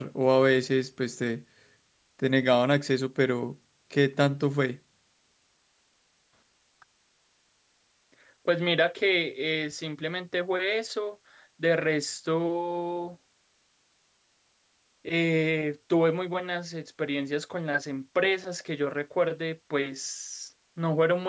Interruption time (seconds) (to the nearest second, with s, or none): none